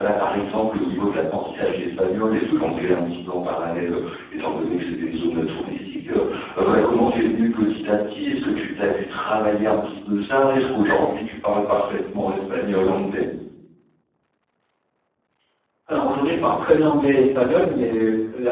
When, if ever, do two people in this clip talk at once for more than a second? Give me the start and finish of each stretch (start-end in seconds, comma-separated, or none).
none